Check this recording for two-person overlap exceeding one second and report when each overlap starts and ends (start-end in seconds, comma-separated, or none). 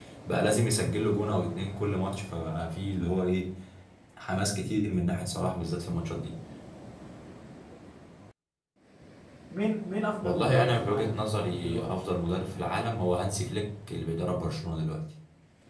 10.2-11.9